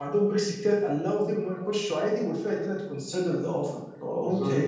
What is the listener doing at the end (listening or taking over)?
taking over